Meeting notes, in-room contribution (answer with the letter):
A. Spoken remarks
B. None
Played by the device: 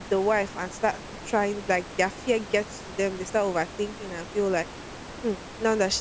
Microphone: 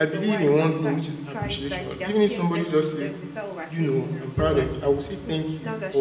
A